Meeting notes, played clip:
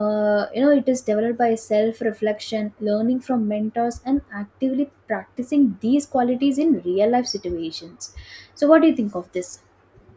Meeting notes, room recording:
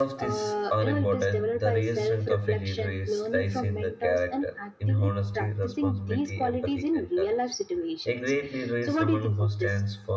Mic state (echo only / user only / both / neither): both